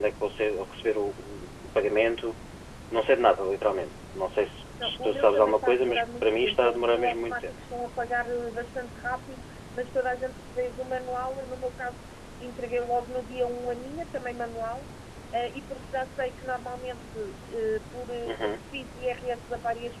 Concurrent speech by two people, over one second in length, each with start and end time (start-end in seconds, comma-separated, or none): 4.8-7.5